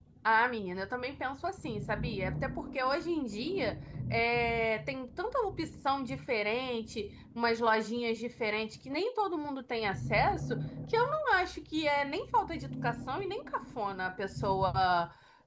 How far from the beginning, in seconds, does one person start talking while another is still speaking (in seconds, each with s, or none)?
none